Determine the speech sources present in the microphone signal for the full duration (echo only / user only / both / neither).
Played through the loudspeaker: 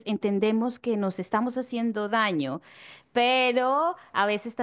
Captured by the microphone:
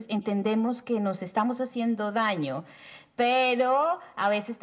echo only